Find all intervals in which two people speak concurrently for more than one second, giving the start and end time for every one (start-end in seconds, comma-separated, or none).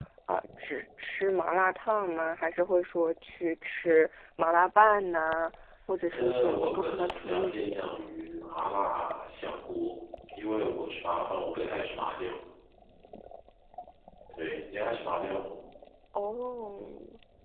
6.1-7.8